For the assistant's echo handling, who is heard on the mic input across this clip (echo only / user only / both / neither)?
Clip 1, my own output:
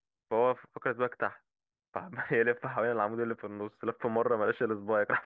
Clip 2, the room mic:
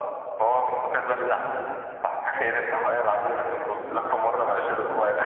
both